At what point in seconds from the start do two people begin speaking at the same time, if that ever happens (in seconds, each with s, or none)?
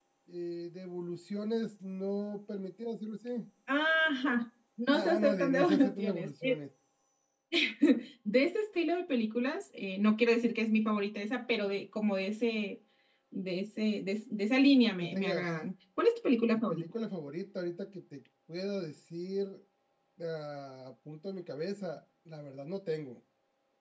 4.9 s